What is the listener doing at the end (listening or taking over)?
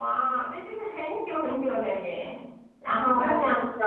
taking over